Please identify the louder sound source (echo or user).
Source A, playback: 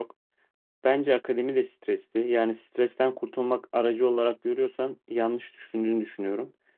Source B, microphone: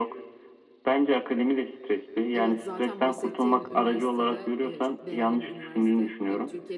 echo